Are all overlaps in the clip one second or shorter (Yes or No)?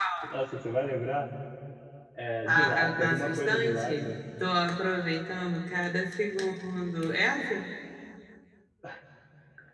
No